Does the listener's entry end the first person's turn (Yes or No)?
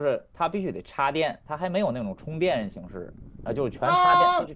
Yes